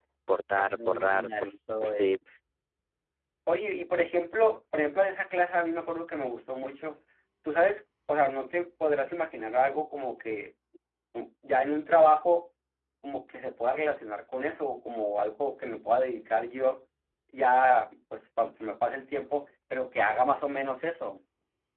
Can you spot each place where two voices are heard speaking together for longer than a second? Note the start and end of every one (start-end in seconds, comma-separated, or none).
0.6-2.1